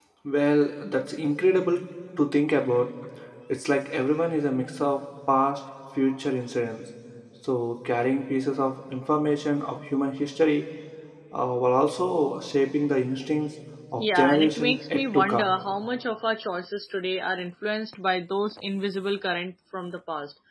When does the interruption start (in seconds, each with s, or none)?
14.0 s